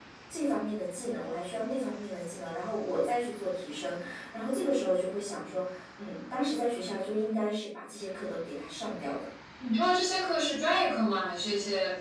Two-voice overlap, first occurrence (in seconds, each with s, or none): none